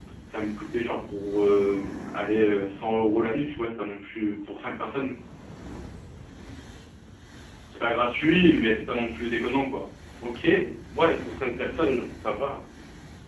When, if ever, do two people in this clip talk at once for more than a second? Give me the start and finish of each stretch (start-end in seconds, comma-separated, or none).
none